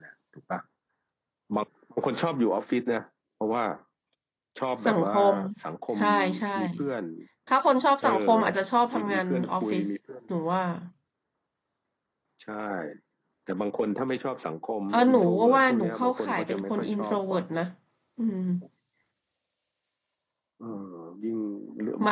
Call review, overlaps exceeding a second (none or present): present